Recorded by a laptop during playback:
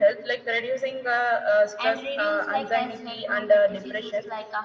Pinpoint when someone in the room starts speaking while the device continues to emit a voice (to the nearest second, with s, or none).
2 s